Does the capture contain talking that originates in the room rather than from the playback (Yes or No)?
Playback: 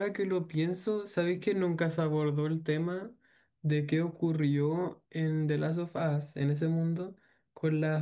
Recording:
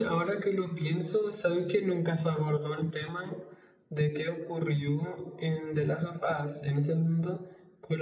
No